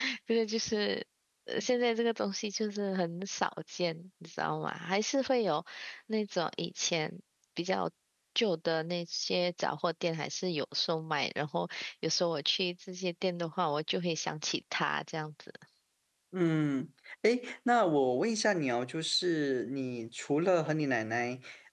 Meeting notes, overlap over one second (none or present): none